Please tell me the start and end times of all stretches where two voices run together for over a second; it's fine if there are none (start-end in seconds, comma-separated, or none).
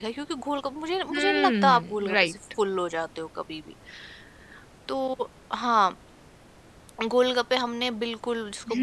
1.1-2.3